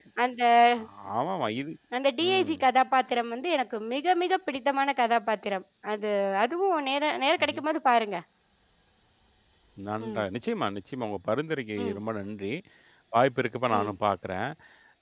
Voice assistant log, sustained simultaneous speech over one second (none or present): none